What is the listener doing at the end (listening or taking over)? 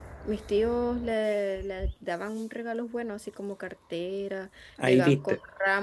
listening